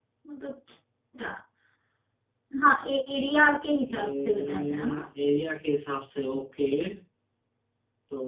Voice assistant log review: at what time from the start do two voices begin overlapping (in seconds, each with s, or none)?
3.8 s